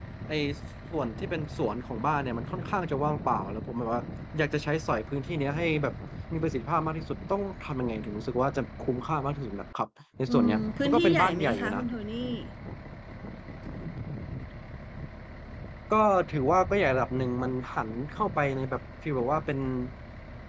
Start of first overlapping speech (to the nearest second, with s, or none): 10 s